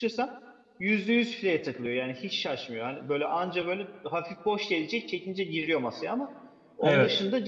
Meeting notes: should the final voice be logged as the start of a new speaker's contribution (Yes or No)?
No